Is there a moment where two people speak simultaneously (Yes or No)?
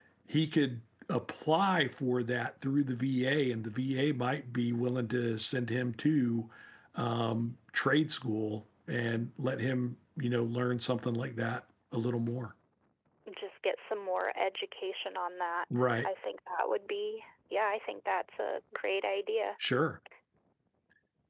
No